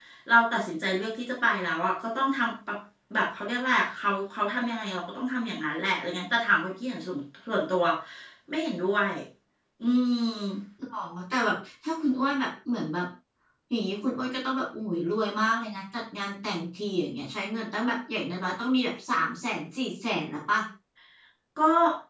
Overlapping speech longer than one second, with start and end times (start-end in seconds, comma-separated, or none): none